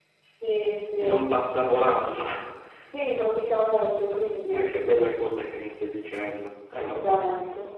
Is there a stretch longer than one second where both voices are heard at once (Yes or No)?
No